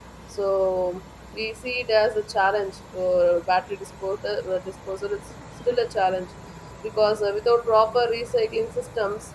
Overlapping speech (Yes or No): No